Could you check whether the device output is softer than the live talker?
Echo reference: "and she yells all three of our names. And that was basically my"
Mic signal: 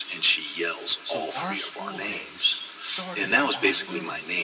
No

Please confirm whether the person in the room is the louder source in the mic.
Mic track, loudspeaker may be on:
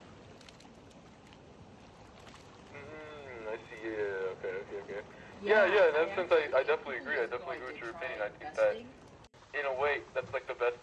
No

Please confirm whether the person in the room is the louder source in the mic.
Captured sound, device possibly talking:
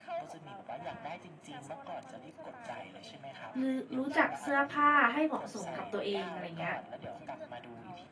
Yes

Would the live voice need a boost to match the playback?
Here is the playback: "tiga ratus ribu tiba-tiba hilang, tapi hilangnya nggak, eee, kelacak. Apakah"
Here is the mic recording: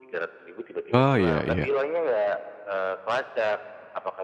No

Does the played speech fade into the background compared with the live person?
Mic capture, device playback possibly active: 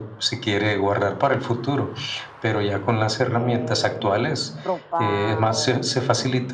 No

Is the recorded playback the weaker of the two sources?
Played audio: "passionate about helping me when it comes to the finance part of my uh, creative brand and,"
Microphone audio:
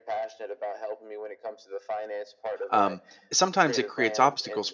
Yes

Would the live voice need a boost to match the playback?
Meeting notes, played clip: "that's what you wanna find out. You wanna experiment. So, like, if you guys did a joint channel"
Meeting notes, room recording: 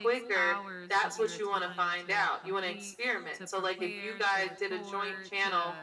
Yes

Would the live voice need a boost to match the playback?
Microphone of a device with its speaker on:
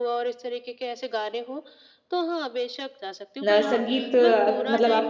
No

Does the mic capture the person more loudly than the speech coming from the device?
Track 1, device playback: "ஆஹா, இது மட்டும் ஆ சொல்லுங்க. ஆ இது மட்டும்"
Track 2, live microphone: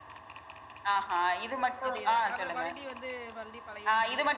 No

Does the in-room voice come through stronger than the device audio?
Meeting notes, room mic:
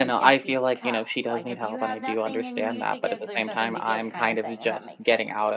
Yes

